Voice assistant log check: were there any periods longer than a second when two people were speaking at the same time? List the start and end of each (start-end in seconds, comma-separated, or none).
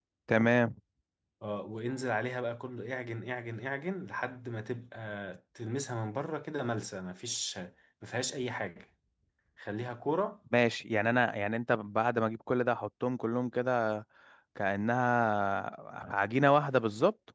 none